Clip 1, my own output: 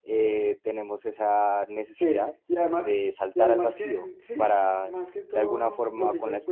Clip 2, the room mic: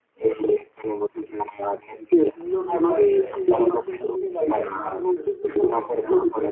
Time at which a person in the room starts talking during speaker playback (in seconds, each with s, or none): 2.3 s